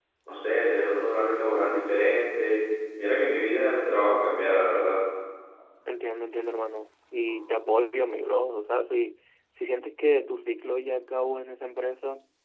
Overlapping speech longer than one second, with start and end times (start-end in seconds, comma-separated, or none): none